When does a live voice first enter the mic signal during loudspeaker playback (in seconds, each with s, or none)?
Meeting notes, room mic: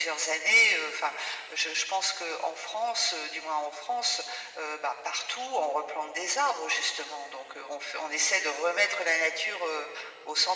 none